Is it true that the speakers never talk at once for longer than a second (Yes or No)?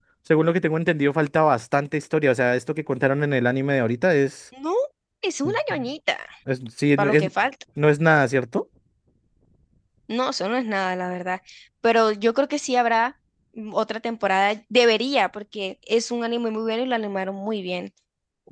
Yes